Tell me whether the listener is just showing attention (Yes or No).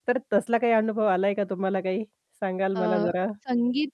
No